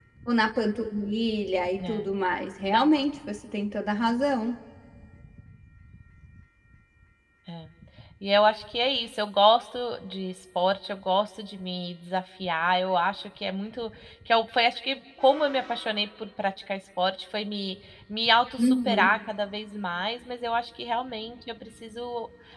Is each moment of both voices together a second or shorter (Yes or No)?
Yes